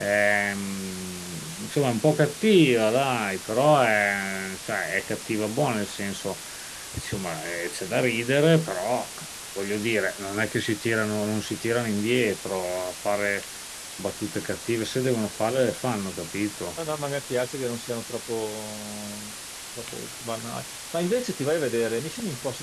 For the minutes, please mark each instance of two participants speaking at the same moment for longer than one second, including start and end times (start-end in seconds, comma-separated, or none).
none